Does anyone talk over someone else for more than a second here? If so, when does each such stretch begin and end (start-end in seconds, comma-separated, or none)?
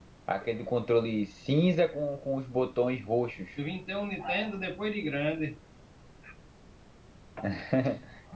none